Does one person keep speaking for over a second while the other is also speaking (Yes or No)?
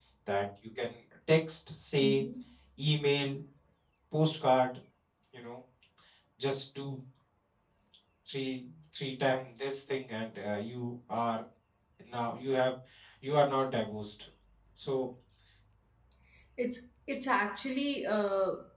No